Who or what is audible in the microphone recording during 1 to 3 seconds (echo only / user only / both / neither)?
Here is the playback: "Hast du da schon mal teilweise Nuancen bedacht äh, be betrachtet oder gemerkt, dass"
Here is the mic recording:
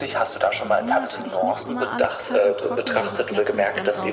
both